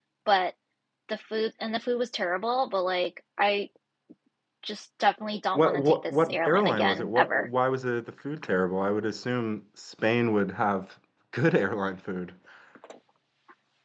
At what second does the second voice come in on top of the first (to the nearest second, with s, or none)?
6 s